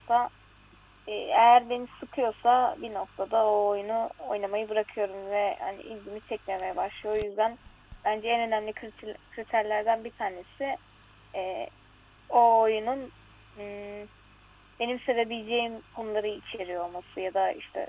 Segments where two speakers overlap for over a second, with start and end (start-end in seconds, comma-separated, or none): none